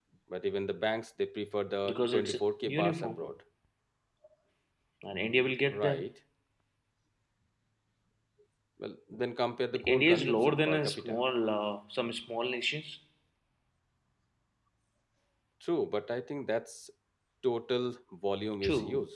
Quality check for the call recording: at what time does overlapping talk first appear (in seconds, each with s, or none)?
1.9 s